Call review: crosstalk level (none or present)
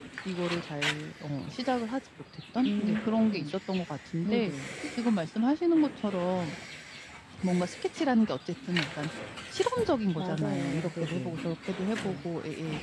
present